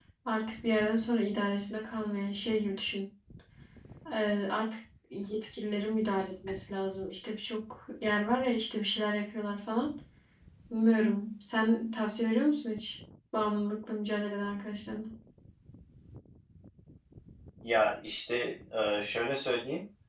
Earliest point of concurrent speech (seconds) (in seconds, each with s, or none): none